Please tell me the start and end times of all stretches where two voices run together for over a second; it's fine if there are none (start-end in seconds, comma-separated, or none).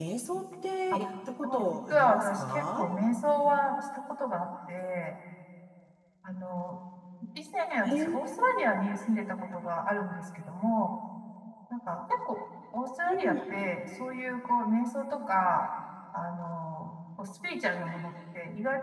1.5-2.9